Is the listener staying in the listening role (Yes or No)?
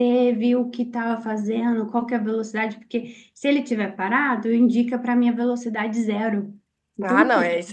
No